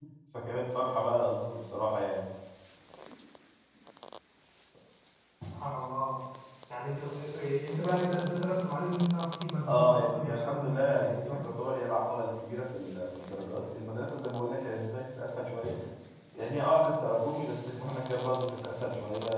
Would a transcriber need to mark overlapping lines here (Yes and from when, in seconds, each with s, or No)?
Yes, from 9.7 s